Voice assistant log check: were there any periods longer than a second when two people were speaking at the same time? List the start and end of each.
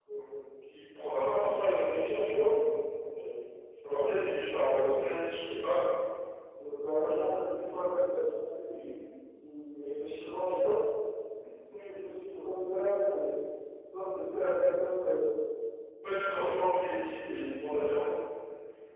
none

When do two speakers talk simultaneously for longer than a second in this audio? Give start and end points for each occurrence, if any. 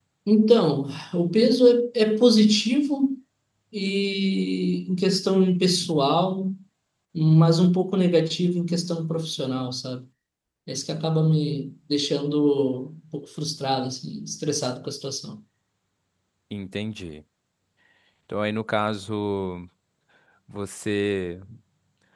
none

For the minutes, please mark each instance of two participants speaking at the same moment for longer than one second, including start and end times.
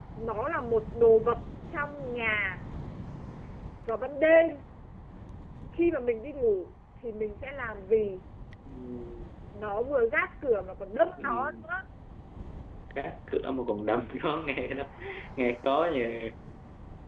none

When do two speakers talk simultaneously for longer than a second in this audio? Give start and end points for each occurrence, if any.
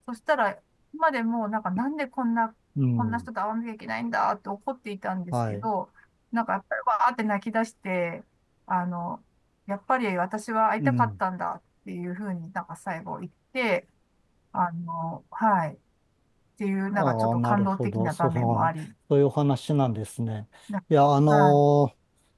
16.9-18.7

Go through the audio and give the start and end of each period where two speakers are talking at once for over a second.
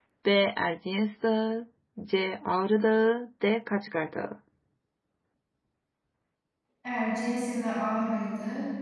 none

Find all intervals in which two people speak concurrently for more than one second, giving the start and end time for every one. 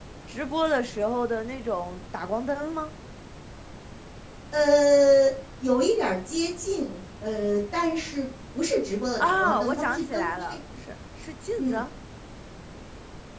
9.2-10.6

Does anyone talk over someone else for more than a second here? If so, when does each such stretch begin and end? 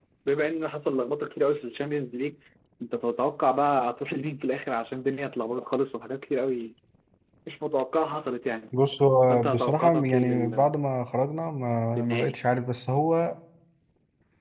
9.3-10.7

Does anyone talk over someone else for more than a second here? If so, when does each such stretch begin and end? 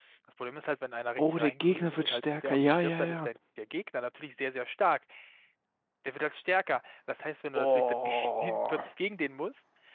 1.2-3.3, 7.5-8.8

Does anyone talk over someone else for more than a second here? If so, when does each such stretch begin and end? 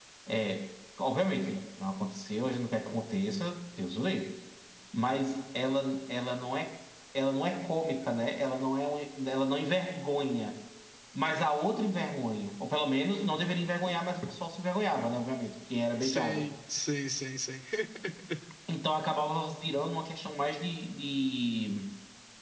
none

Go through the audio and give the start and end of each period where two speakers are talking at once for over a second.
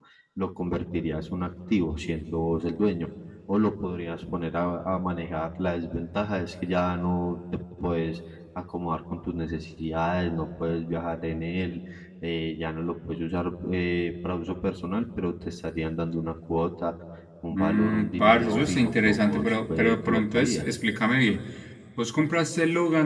17.5-20.7

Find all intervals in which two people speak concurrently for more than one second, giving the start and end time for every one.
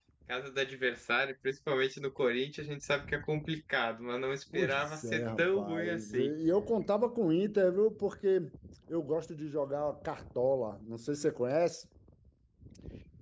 4.5-6.3

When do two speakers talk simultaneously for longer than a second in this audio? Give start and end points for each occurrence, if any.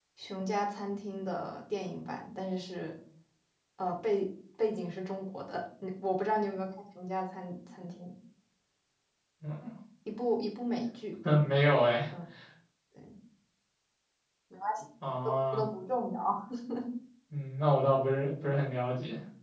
none

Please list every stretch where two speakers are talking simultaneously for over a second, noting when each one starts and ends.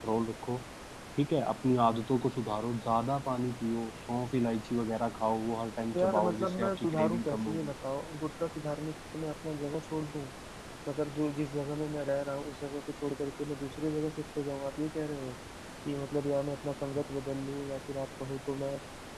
5.9-7.7

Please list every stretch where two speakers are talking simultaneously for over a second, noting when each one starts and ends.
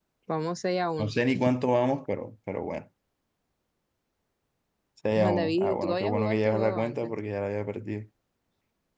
5.2-7.2

